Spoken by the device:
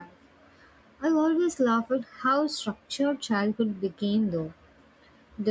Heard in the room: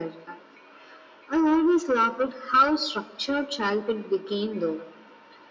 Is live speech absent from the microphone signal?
Yes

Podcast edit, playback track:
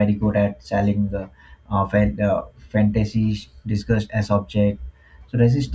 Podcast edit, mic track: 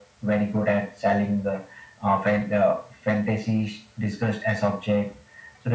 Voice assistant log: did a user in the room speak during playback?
No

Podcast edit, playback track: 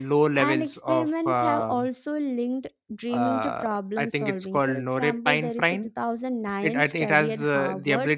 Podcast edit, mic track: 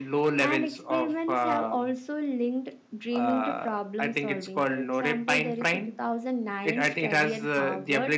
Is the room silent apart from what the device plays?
Yes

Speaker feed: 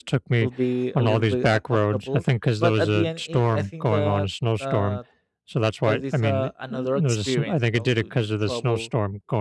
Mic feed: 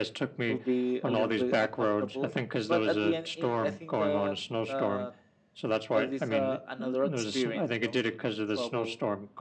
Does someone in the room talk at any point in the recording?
No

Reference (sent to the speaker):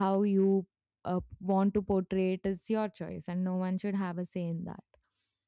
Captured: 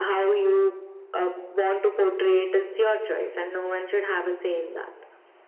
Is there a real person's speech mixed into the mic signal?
No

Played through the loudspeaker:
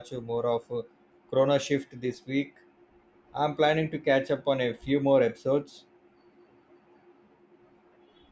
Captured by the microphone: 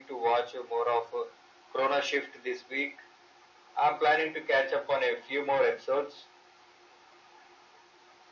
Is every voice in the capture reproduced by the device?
Yes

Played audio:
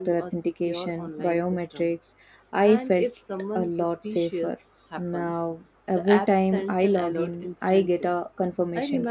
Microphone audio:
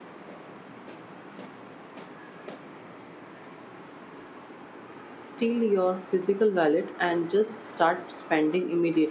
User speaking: Yes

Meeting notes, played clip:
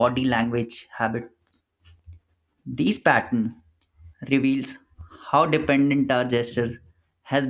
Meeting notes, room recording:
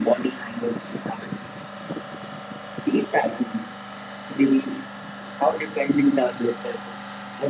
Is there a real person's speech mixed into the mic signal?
No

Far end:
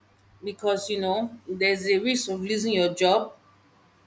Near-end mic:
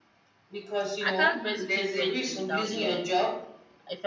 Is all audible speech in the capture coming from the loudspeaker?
No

